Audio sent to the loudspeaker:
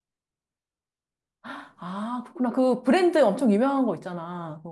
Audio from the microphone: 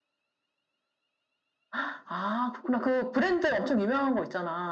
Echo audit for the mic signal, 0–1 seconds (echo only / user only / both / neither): neither